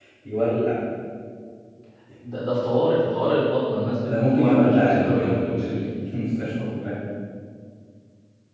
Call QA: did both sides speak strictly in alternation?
No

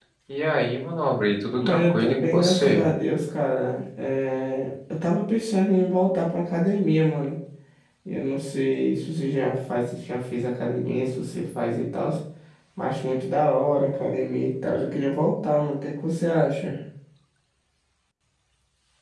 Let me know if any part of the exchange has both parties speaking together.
Yes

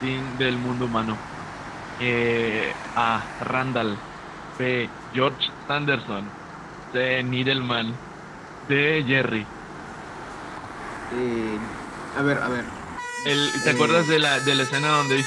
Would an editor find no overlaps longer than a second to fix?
Yes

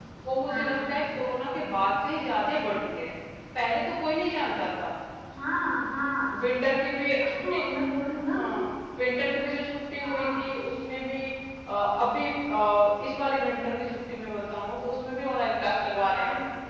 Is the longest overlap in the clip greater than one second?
No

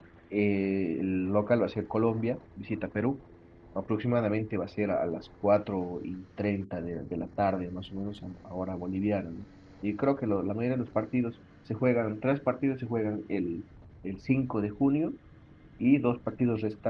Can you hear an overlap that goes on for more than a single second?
No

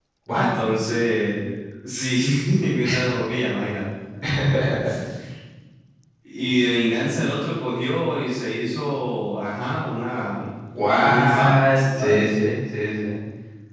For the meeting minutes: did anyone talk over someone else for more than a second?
Yes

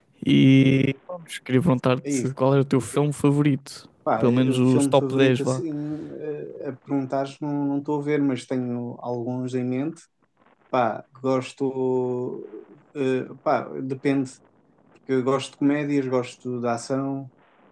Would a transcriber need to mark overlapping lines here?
Yes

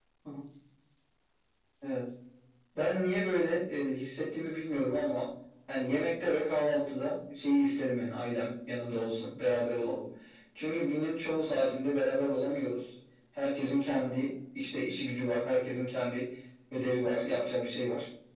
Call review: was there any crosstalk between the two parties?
No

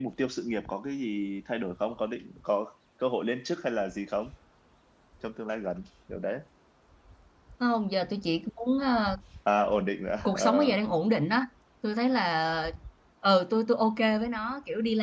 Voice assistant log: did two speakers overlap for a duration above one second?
No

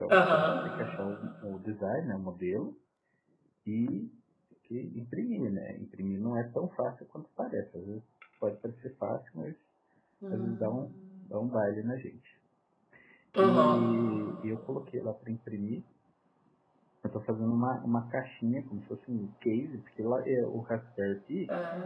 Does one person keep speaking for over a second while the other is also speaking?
No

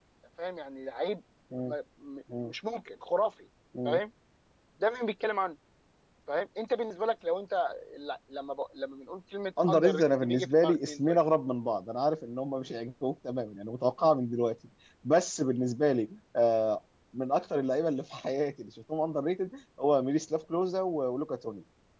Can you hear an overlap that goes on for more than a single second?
Yes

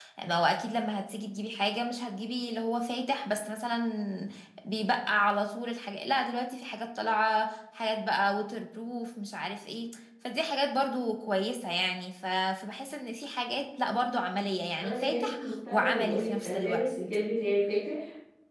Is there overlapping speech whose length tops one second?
Yes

